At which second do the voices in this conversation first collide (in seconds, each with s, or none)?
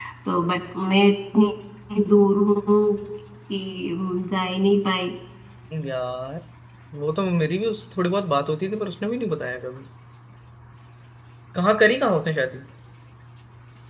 none